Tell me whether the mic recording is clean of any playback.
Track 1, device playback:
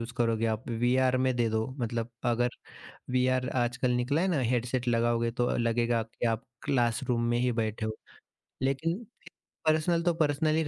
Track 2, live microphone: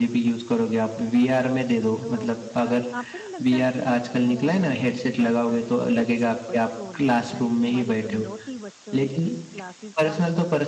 No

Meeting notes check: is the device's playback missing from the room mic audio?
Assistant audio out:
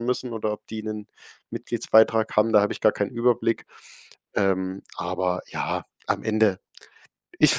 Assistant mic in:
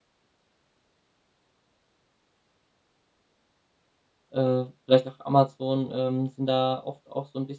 Yes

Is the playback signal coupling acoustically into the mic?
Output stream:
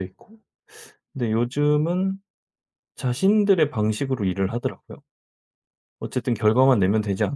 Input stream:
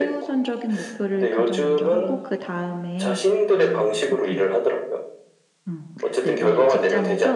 Yes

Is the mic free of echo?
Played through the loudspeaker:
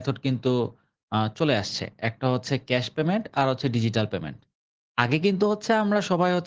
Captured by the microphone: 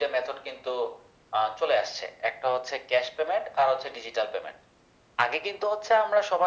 No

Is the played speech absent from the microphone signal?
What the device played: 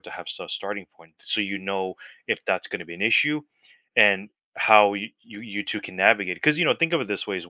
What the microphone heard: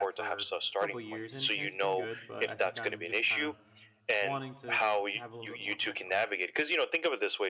No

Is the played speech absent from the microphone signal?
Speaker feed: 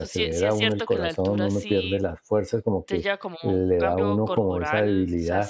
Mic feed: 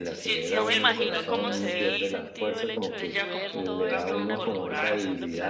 No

